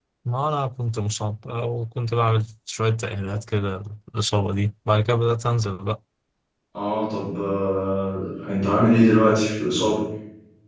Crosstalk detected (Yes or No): No